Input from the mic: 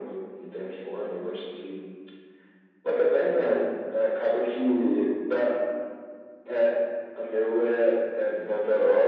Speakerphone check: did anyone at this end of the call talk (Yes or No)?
No